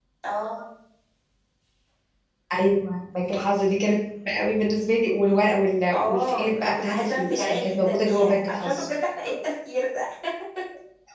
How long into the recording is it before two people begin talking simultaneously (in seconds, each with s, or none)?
5.9 s